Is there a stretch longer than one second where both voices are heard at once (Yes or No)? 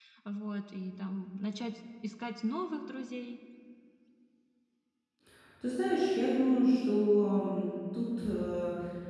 No